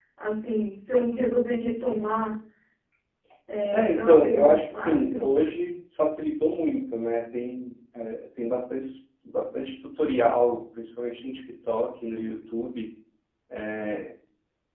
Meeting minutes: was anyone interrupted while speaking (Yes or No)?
Yes